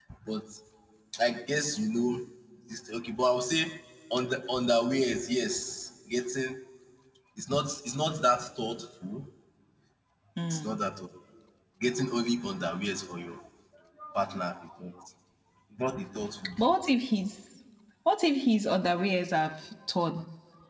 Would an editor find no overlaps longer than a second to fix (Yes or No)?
Yes